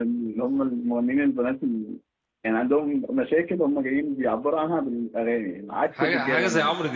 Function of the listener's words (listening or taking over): taking over